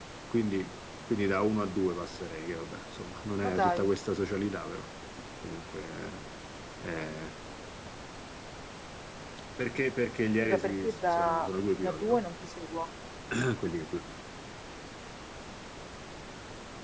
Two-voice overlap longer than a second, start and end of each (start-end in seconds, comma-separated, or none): 10.4-12.2